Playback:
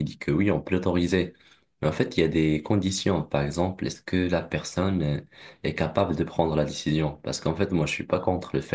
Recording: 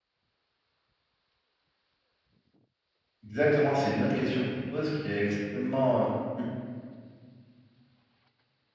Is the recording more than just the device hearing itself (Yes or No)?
Yes